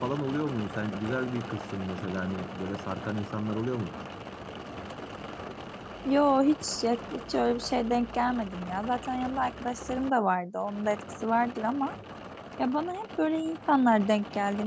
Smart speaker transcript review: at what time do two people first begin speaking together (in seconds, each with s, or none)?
none